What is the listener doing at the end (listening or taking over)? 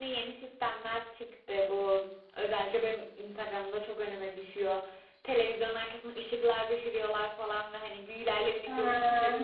listening